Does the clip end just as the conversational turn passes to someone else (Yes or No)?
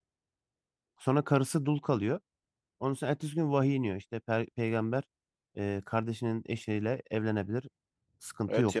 Yes